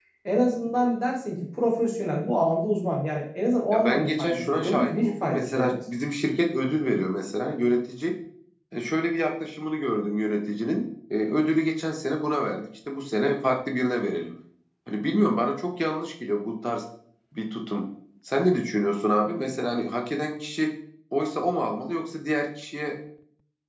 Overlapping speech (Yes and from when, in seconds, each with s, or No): Yes, from 3.7 s